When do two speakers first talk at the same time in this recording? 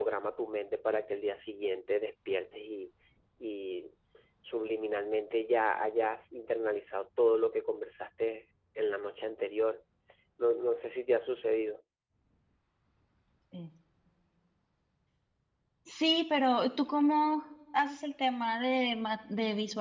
none

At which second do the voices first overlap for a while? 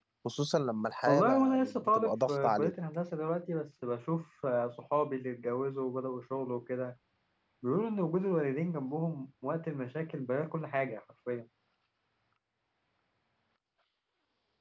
1 s

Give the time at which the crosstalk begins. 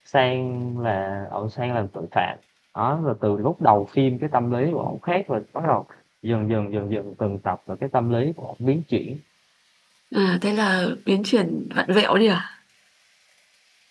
none

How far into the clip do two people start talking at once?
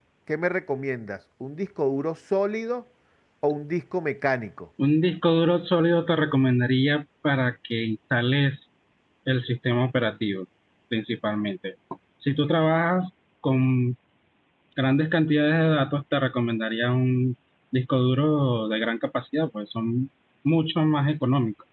none

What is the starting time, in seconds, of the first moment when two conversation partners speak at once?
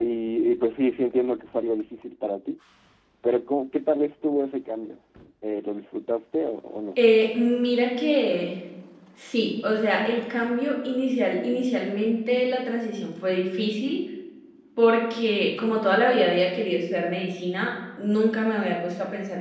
none

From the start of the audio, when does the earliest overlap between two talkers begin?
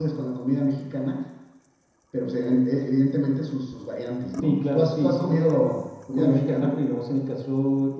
4 s

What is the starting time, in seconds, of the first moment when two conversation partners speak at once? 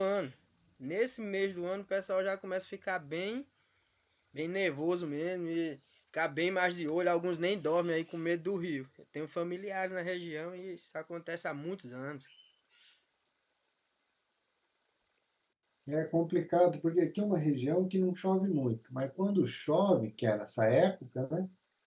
none

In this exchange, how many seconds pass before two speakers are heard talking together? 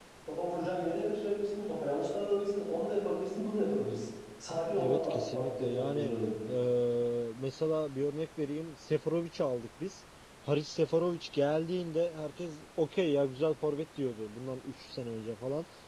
5 s

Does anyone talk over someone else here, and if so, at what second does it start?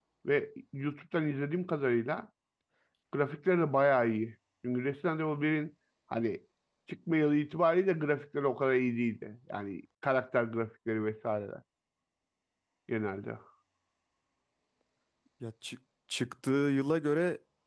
none

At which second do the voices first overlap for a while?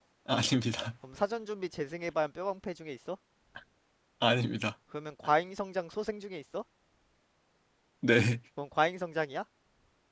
none

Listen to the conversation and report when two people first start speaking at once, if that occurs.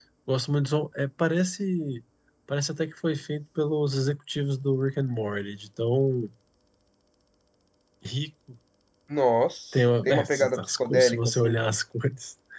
10 s

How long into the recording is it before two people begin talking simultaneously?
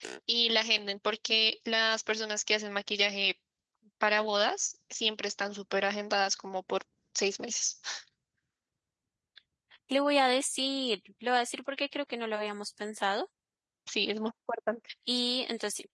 none

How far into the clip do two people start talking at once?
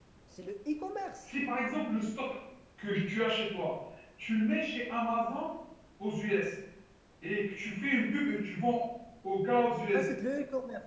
none

